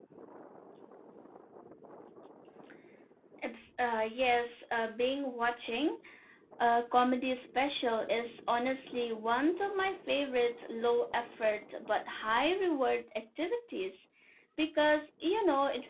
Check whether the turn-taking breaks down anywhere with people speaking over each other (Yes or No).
No